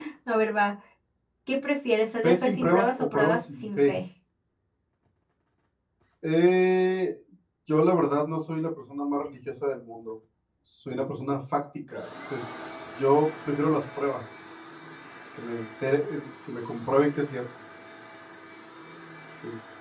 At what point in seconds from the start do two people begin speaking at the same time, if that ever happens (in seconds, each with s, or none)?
2.2 s